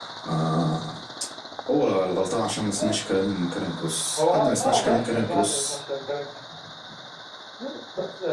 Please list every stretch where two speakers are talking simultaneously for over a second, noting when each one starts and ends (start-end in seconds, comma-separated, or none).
4.2-5.8